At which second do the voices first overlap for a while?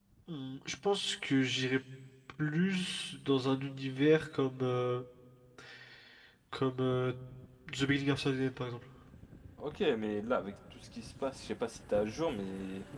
none

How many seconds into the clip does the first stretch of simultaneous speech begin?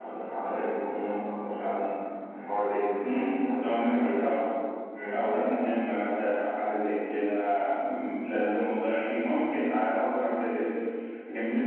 3 s

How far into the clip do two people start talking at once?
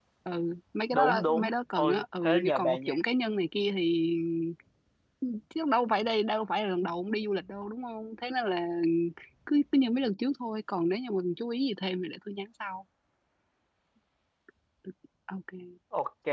1 s

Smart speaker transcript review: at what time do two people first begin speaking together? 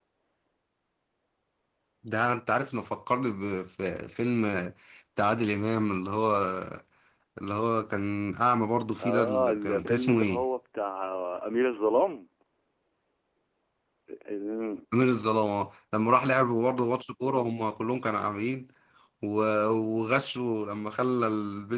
9 s

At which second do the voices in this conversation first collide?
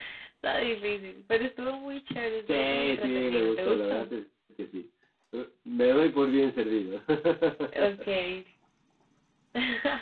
2 s

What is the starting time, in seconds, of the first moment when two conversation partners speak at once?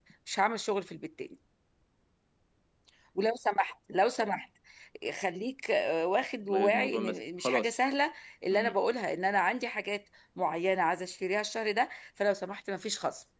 6 s

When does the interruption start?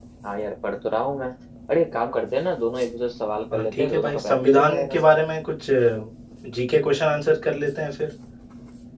4 s

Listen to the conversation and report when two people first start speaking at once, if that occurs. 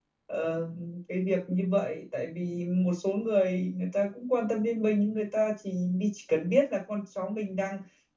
none

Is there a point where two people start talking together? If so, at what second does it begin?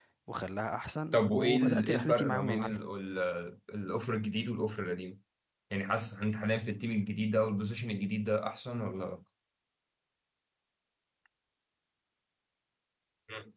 1 s

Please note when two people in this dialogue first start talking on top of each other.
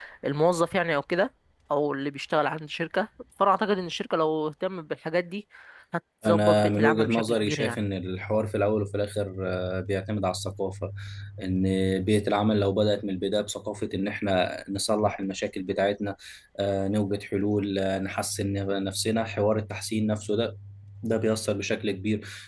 6 s

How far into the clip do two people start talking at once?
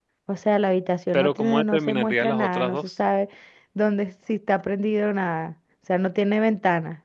1 s

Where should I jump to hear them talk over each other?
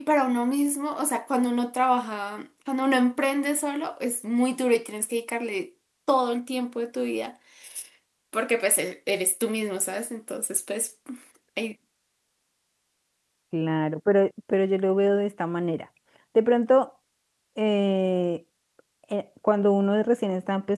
none

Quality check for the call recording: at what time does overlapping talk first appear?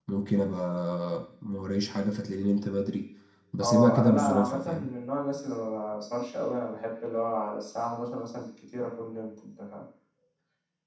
4 s

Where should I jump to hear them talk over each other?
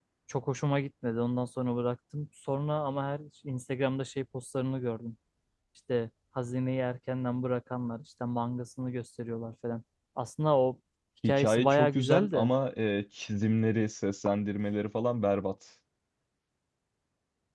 11 s

